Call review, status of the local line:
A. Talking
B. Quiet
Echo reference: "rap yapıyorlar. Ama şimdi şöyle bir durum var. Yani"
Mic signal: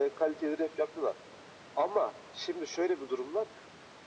B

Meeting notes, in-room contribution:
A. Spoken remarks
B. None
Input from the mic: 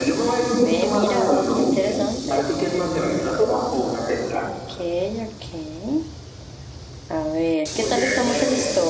A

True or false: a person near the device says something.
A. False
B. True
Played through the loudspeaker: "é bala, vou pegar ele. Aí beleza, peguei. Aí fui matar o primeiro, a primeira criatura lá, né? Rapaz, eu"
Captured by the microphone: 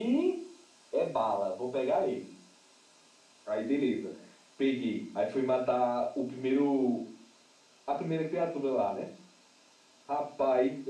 A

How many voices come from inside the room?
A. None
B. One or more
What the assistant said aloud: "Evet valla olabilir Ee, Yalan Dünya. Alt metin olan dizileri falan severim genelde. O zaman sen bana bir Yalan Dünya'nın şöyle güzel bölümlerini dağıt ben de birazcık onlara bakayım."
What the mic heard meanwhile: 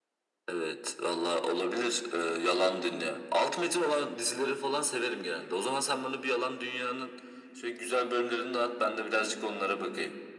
A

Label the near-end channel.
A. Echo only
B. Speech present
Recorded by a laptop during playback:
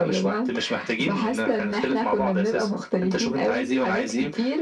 A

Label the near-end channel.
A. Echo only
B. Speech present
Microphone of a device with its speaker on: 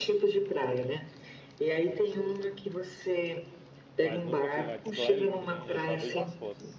B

